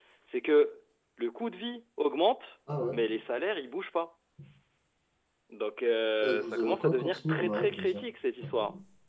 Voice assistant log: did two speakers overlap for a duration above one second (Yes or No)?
Yes